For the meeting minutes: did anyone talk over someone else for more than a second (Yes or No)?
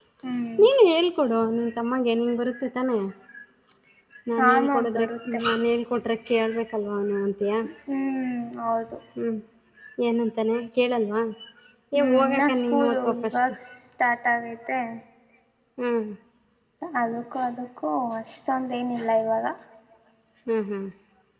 Yes